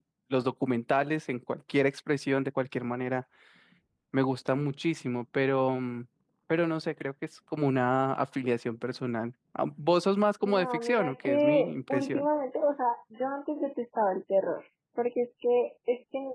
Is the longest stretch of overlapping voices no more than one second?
No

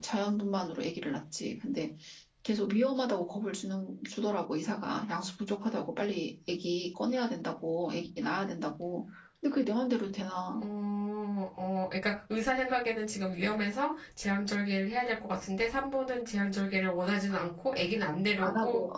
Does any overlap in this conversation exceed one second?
No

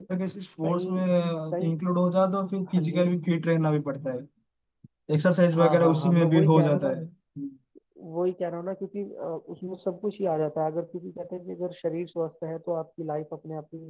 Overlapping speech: Yes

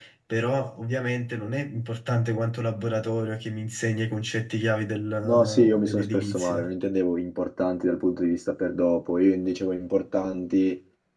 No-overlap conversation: No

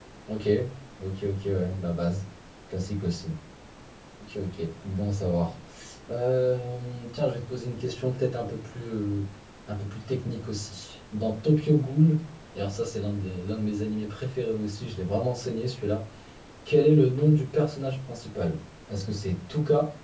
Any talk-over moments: No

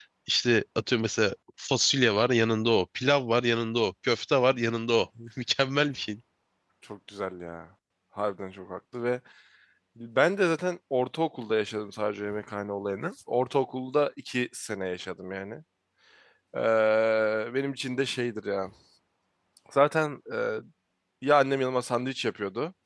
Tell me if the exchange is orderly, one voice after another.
Yes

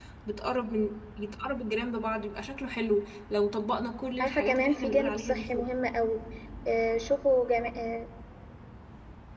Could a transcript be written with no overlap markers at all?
No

